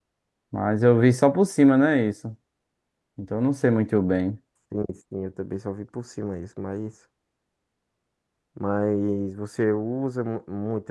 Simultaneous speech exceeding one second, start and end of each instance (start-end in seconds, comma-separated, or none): none